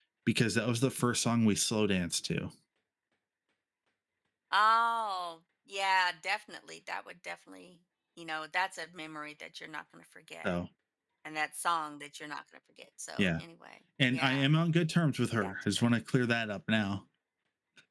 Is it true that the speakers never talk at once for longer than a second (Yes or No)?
Yes